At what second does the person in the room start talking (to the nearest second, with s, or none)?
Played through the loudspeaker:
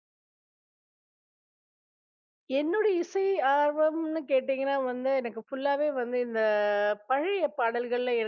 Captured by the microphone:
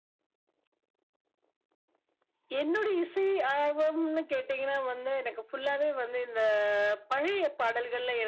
none